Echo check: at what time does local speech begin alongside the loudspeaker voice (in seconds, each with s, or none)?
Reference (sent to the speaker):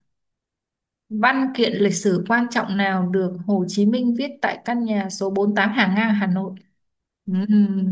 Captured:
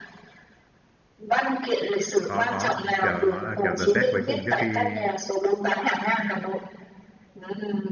2.2 s